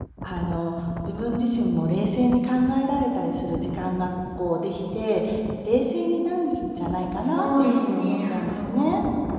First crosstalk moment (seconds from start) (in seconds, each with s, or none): 7.1 s